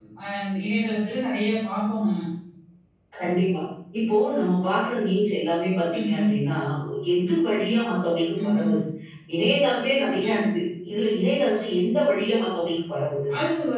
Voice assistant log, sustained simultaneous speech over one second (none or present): none